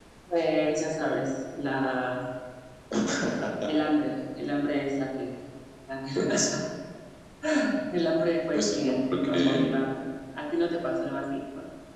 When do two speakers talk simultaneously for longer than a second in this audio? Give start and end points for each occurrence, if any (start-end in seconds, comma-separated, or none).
8.5-9.8